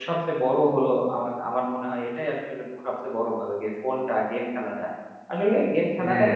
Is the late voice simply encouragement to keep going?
Yes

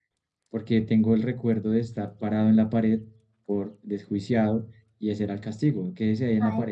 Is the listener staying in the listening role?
No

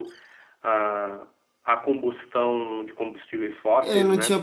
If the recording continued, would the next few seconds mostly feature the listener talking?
Yes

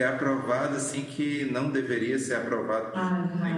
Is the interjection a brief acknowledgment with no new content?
No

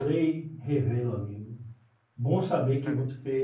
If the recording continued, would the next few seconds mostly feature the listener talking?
No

